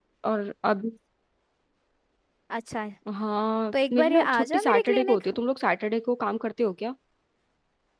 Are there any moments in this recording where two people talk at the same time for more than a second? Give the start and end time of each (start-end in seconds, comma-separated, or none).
3.9-5.2